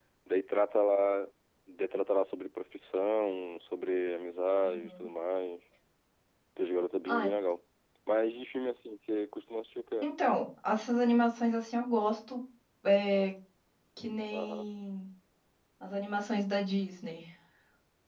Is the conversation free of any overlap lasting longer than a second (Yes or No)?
Yes